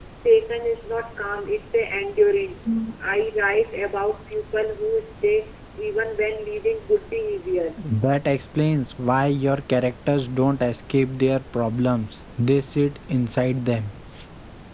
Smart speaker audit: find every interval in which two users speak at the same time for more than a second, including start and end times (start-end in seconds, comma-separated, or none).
none